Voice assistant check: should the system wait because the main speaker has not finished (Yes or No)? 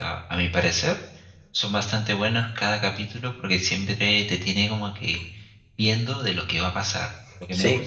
Yes